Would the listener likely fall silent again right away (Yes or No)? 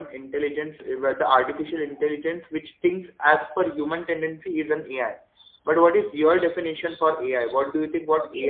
No